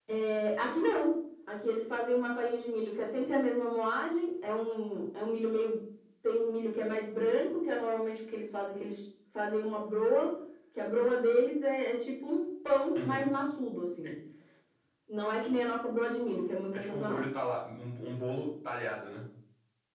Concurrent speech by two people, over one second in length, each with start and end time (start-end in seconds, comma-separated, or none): none